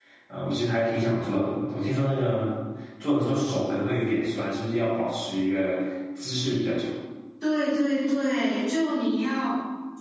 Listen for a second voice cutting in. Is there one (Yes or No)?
No